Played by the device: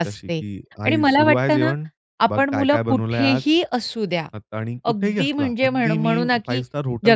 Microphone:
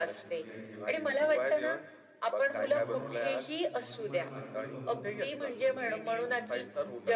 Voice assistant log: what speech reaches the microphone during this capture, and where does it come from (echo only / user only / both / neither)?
both